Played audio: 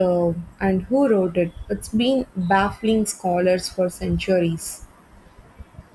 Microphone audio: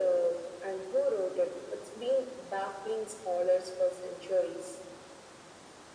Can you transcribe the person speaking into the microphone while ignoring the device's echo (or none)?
none